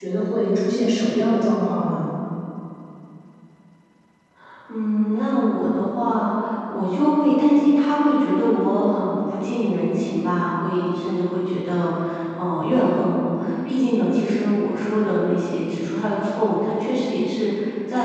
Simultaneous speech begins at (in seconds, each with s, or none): none